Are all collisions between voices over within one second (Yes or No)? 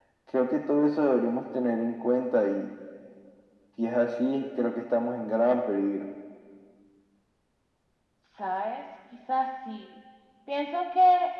Yes